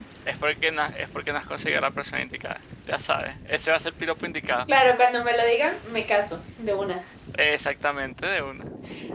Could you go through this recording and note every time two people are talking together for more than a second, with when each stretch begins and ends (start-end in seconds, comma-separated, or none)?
none